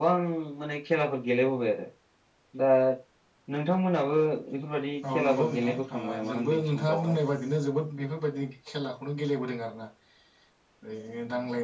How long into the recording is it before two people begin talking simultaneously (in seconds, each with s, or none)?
5.0 s